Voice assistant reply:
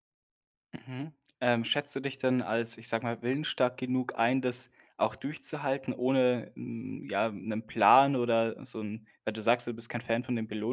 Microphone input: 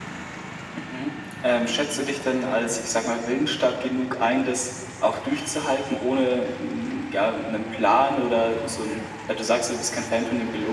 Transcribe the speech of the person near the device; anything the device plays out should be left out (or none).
none